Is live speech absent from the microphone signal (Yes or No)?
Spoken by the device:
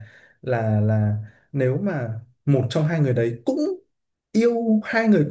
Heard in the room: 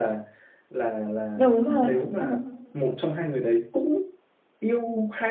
No